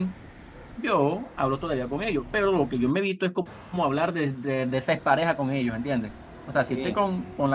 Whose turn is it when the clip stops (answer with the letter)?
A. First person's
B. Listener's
A